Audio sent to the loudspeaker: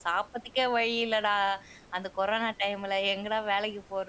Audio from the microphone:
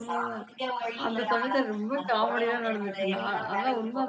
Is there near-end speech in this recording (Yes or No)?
Yes